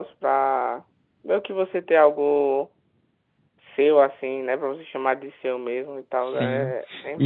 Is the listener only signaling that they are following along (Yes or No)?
No